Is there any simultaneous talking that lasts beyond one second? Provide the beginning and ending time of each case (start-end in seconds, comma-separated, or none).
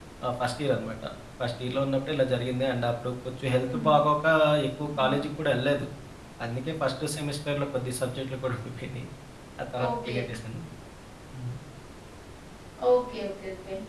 none